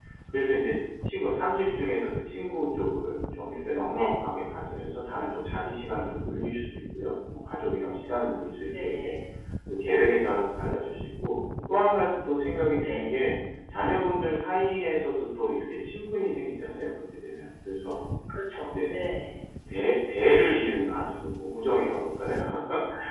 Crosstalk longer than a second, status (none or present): none